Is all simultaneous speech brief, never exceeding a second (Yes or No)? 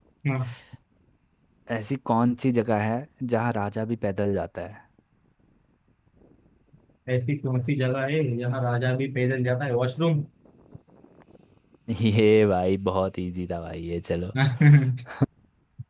Yes